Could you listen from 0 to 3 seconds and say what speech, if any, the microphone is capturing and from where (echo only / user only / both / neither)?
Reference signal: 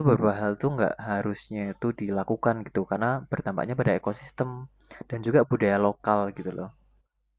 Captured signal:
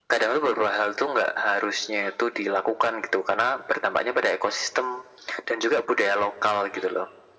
echo only